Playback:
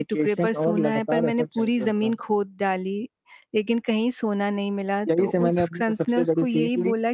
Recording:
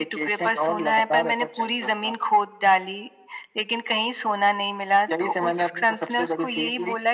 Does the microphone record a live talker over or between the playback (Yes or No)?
No